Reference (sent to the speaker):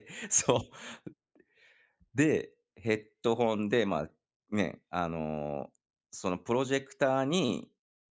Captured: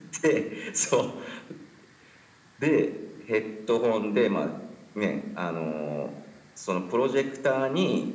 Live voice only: none

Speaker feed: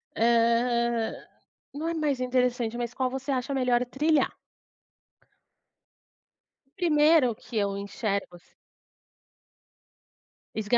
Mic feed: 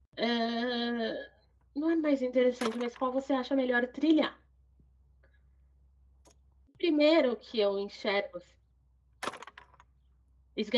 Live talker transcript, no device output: none

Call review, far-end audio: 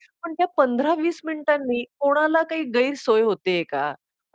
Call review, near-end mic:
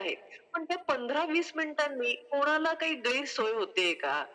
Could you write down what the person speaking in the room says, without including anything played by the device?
none

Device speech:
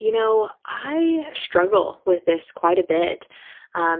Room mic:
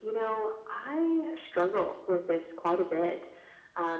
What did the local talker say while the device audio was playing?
none

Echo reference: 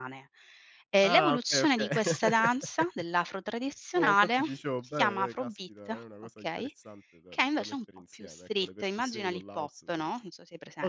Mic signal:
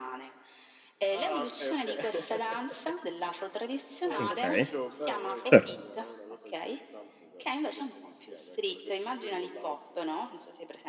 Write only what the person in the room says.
Okay, cer

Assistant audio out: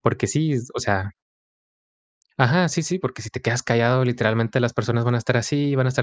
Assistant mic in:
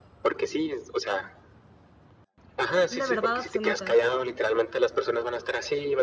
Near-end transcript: la verdad absoluta.

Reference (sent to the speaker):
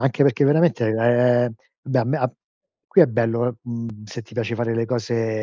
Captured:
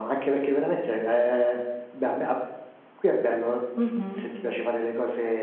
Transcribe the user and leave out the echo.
Mh-mh.

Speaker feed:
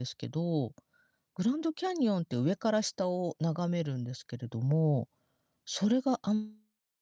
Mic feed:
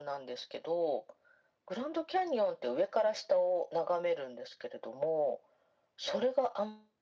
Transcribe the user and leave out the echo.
none

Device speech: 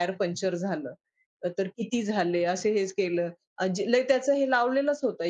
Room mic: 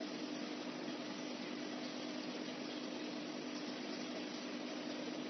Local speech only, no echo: none

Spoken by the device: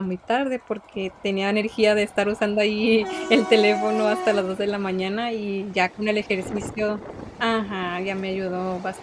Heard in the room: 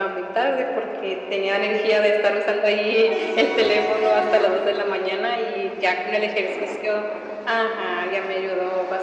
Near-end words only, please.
none

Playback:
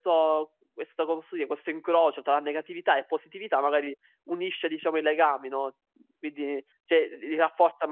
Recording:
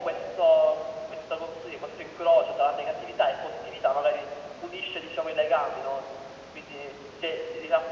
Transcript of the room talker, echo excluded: none

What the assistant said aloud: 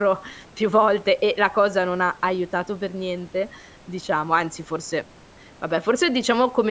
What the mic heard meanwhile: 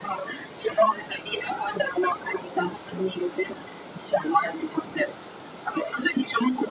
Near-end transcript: none

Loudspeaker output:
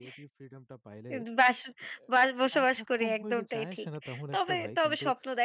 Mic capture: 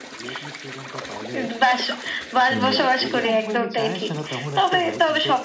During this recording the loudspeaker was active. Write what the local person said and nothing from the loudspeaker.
এন এ এ

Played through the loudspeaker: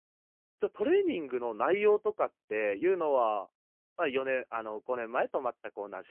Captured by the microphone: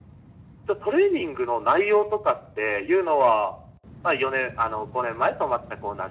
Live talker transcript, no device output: none

